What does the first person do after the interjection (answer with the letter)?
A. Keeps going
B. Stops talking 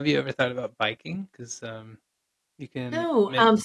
B